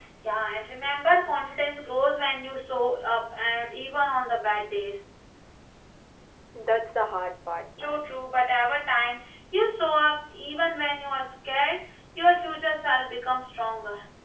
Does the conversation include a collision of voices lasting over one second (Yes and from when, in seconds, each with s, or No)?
No